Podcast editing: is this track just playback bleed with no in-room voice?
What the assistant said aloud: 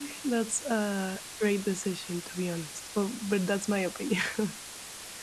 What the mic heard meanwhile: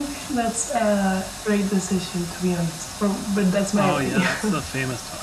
No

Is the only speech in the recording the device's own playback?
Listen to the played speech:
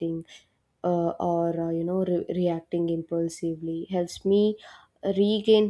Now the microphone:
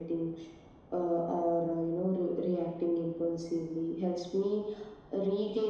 Yes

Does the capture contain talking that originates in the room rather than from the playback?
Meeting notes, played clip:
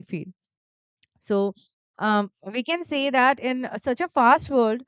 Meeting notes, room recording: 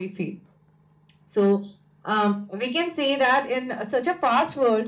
No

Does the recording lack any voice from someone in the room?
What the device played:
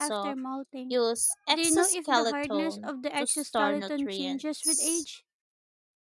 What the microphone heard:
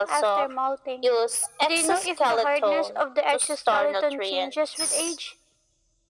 Yes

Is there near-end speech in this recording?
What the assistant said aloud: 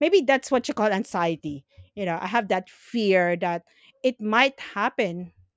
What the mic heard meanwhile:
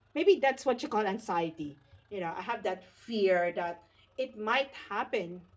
No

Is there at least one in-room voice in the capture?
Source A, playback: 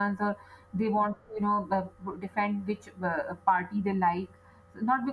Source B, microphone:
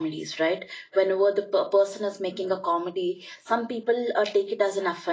Yes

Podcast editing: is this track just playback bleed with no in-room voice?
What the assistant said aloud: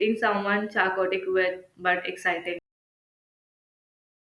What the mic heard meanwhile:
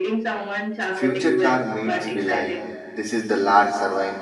No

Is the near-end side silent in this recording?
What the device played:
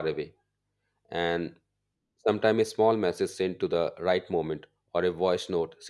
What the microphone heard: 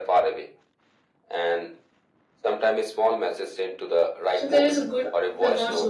No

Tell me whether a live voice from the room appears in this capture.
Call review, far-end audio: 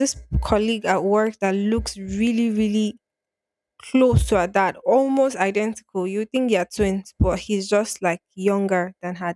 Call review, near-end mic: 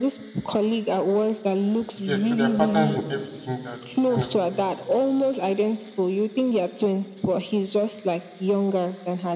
Yes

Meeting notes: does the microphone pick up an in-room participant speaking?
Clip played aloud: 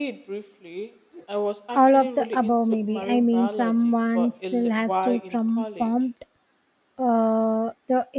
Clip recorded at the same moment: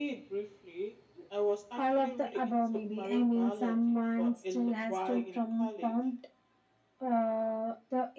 No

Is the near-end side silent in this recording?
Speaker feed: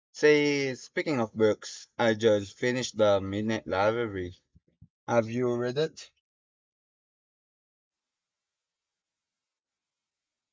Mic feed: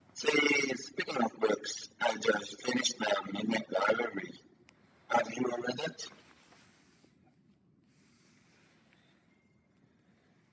Yes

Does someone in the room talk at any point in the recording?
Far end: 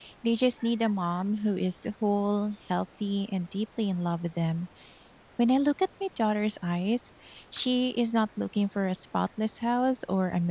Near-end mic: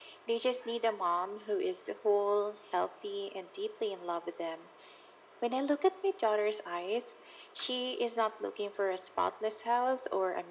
No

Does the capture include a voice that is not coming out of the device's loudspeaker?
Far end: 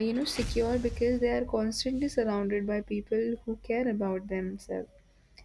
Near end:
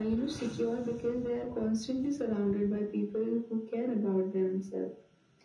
No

